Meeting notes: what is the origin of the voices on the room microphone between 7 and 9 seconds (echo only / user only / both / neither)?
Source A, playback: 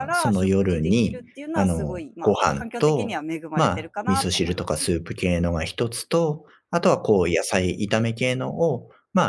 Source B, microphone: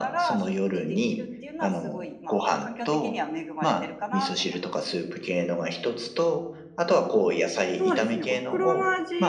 both